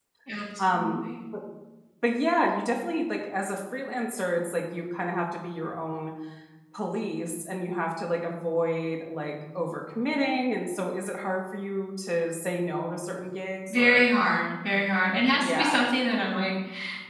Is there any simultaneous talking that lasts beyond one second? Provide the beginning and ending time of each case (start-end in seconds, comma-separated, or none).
none